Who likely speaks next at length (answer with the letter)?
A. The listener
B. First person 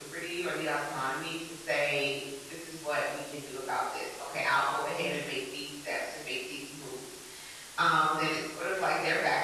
B